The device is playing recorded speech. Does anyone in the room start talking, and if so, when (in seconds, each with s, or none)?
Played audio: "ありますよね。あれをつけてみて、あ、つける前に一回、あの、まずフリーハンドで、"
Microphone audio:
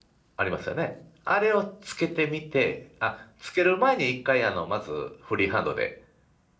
none